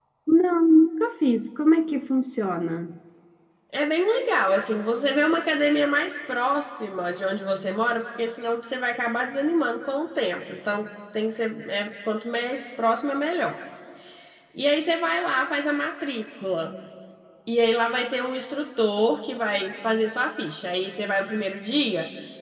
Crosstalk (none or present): none